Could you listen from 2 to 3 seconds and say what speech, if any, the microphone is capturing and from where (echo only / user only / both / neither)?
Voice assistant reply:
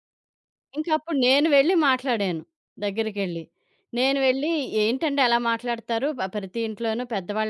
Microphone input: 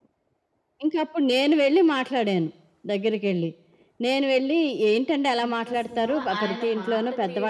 echo only